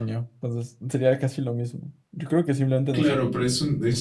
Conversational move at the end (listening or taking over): taking over